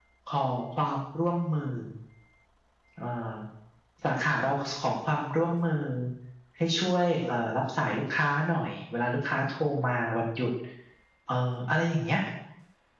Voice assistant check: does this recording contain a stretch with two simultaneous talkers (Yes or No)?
No